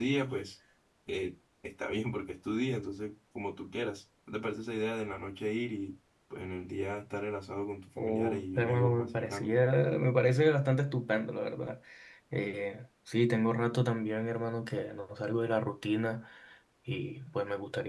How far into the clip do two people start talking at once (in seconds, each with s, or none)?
8.0 s